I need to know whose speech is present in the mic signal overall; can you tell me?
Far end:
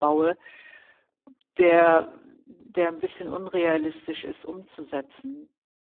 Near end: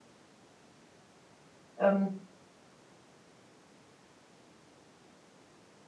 user only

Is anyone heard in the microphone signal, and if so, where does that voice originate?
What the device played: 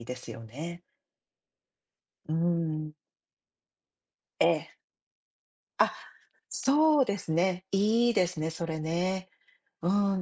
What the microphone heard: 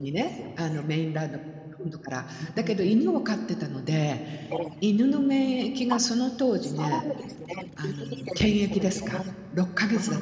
both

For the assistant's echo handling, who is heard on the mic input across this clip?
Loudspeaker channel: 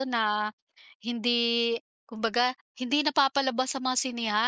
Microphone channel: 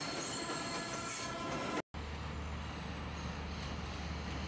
neither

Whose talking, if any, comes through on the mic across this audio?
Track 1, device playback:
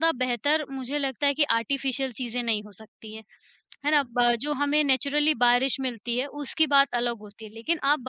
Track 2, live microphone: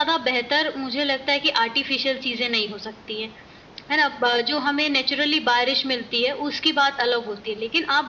echo only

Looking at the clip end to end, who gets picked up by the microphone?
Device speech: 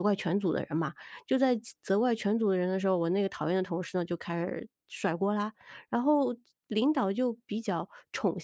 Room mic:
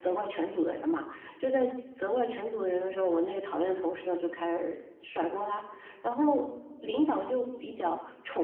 echo only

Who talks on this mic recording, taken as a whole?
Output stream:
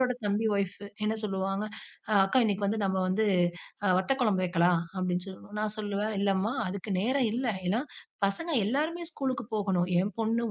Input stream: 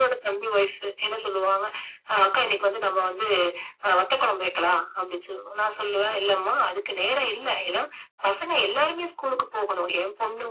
echo only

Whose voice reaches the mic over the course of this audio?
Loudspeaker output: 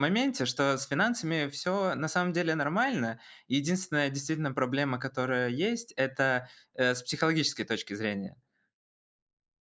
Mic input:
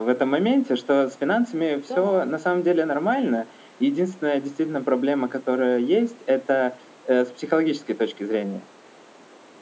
both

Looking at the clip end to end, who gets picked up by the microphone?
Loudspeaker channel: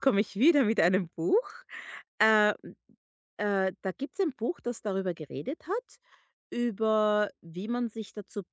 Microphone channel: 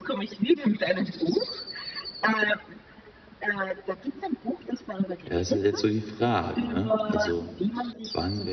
both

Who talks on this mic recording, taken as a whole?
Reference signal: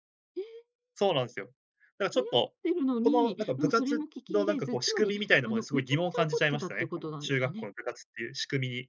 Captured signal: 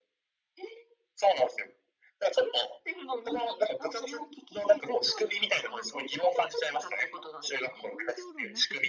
both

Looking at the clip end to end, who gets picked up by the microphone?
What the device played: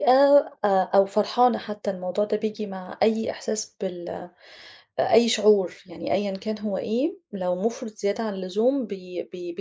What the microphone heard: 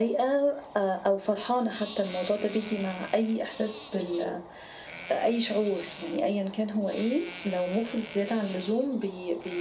echo only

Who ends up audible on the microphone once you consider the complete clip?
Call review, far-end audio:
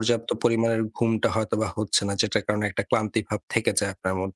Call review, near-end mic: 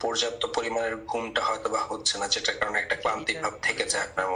both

